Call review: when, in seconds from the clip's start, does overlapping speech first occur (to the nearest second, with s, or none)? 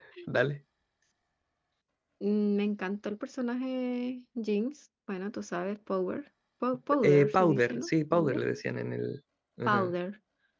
7 s